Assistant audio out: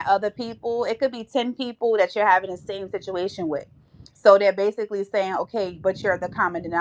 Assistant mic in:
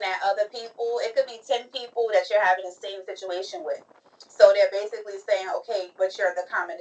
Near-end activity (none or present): none